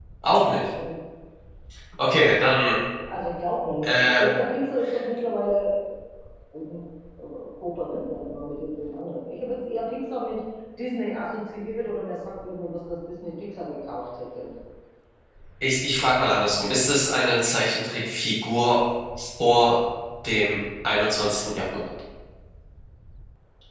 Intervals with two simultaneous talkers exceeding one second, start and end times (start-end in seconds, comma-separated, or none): none